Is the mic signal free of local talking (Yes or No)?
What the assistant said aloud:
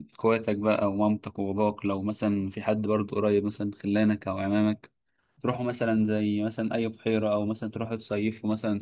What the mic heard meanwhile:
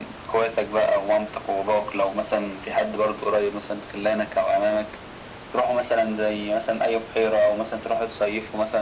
Yes